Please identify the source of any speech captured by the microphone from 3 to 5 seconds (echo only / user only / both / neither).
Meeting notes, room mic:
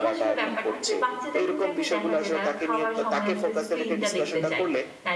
both